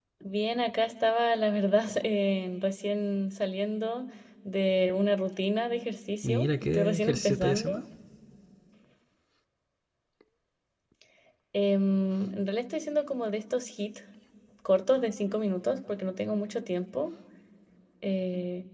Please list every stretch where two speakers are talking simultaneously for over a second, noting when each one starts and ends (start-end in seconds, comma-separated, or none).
6.2-7.8